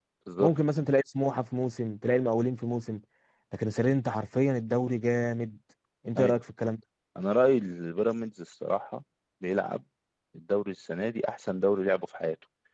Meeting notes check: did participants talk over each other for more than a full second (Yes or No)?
No